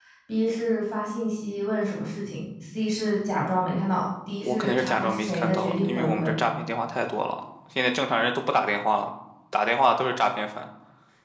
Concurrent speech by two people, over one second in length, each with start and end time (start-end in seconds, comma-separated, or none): 4.4-6.3